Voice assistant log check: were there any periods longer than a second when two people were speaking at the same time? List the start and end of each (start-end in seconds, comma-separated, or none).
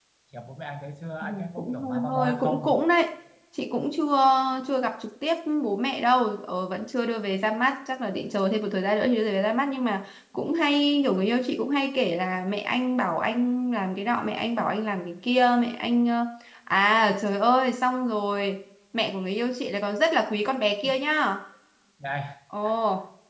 1.2-2.8